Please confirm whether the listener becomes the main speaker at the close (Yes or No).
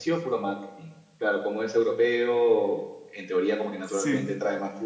No